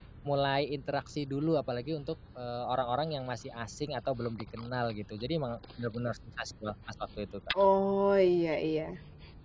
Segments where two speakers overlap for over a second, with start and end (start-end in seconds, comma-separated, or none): none